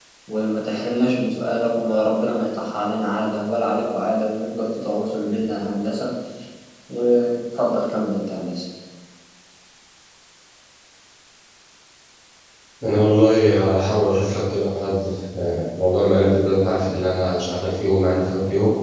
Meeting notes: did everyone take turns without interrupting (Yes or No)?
Yes